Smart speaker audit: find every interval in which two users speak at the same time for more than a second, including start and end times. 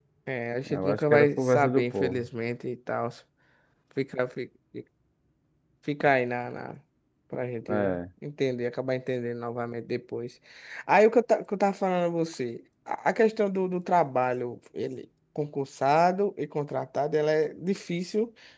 0.7-2.3

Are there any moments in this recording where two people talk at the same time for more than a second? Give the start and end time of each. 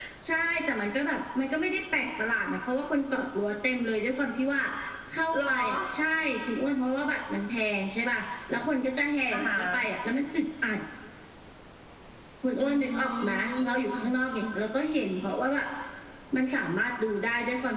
12.6-14.1

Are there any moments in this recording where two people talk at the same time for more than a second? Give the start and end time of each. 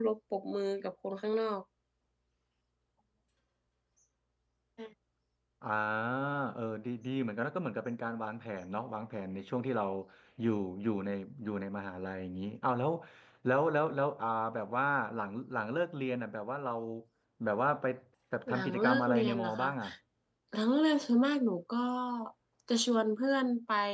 18.5-19.7

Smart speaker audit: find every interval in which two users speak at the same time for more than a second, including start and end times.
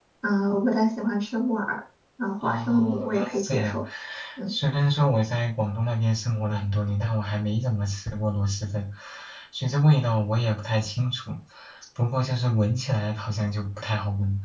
2.4-3.8

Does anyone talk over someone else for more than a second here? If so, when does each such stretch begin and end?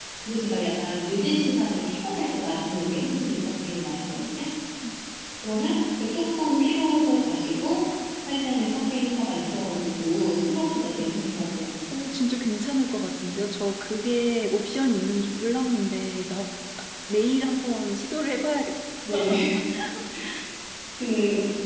none

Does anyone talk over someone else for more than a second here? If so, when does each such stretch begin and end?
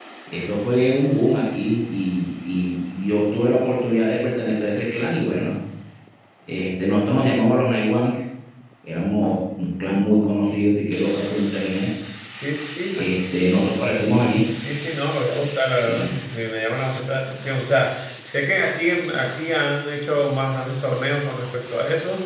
none

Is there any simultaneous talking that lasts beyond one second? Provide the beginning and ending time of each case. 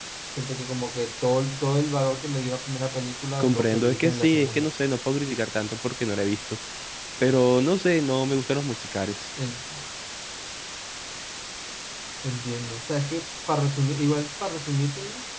3.4-4.7

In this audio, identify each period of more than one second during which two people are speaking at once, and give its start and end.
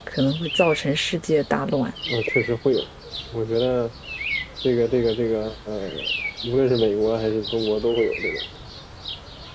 none

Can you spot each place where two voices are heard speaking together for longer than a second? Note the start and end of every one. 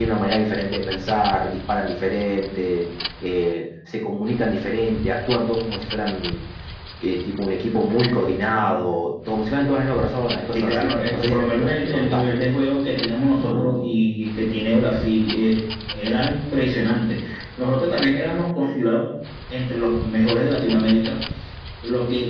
10.5-12.2

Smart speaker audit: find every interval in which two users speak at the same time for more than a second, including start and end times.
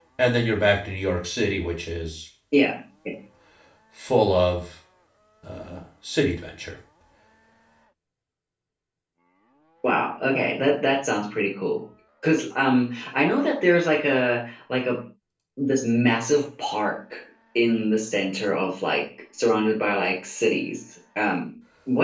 none

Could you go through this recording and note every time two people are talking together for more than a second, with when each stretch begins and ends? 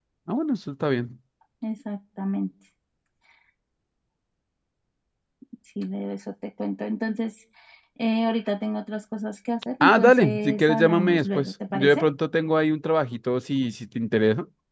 9.8-12.1

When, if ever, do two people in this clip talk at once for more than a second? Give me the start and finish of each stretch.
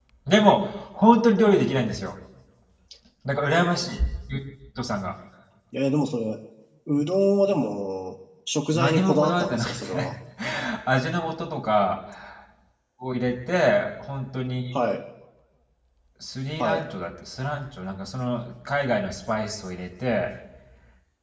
8.7-10.1

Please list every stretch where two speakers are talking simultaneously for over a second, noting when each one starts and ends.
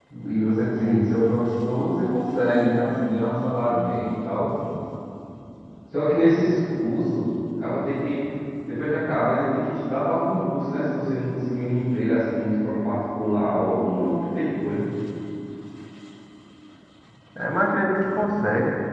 none

